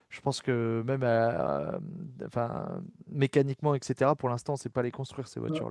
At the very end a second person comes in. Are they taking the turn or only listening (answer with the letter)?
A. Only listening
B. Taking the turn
B